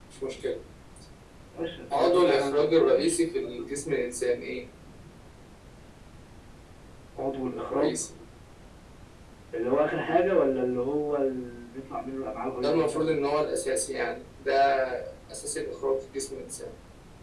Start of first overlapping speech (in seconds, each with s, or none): 1.9 s